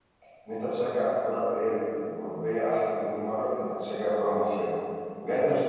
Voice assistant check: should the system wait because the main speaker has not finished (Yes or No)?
No